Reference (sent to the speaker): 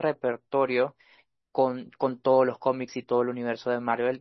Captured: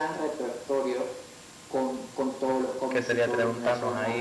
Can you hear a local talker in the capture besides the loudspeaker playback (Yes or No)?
Yes